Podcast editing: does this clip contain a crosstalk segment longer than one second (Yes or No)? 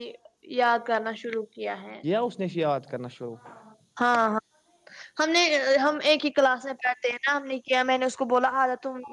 No